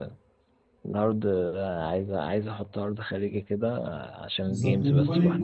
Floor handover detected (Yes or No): Yes